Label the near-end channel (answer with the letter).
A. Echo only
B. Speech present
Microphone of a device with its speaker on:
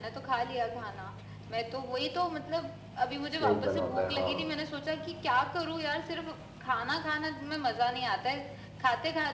B